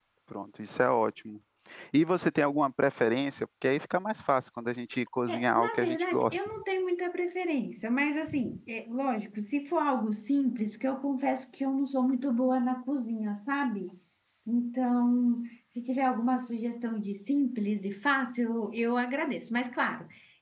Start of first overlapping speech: 5.3 s

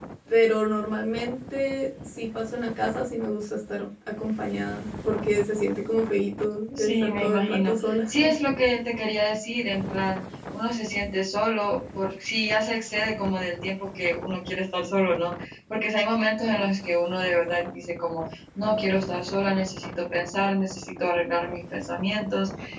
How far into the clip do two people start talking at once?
6.8 s

